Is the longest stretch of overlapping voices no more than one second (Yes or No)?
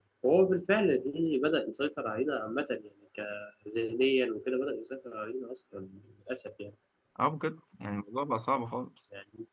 Yes